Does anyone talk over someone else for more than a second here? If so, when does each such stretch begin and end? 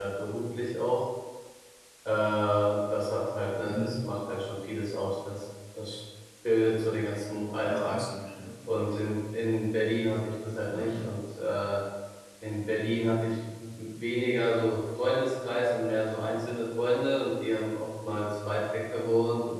none

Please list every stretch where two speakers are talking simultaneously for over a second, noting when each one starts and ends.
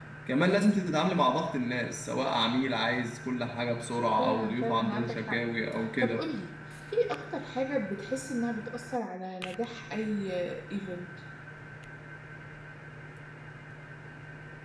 4.2-5.4

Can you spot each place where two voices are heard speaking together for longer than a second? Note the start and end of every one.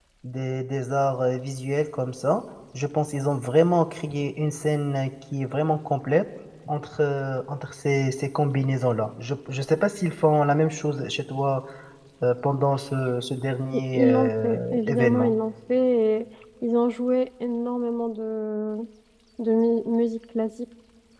13.9-15.3

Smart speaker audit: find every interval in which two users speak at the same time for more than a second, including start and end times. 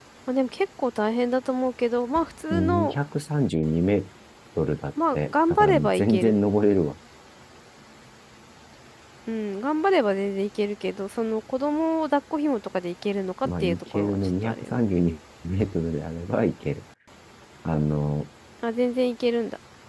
5.1-6.4, 13.4-14.8

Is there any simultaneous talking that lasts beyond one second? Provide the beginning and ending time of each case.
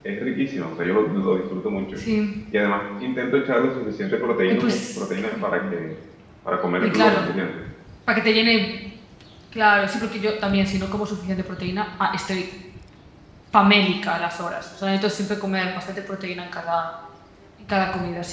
4.5-5.8

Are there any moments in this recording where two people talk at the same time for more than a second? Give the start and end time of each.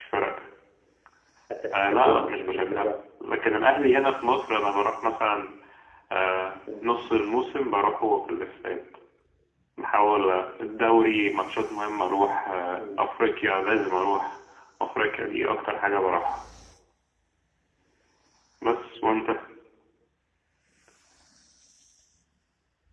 1.7-2.9

